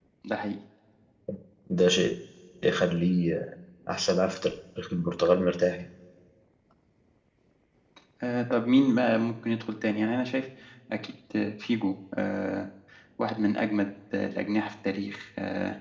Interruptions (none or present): none